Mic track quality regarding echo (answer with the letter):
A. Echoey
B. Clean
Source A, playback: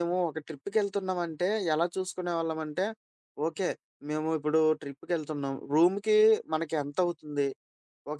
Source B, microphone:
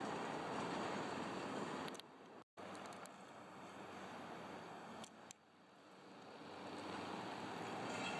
B